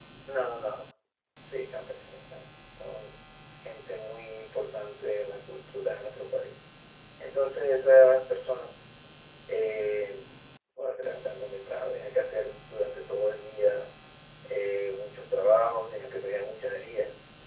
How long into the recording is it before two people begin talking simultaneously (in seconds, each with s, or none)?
none